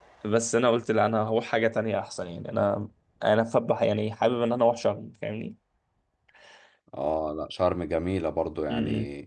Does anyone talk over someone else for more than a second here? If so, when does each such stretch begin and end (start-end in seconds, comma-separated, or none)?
none